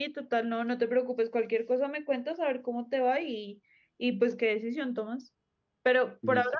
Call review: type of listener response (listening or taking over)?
listening